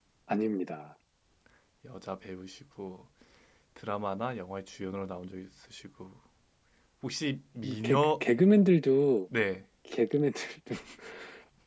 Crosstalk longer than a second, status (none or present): none